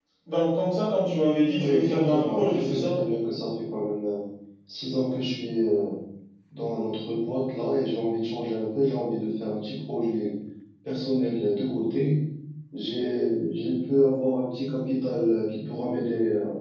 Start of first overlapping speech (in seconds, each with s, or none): 1.6 s